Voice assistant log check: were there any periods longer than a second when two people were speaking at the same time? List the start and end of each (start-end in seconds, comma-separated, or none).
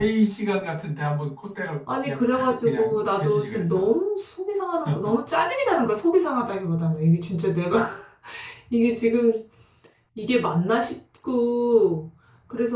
2.0-3.9